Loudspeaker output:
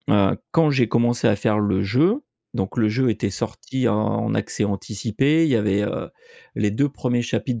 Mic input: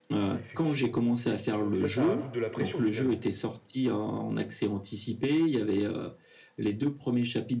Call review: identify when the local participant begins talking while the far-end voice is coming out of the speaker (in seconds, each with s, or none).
0.3 s